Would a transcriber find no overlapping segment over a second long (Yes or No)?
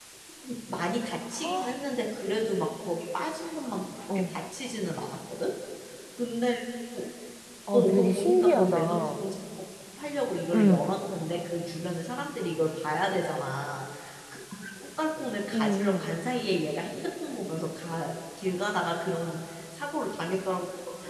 No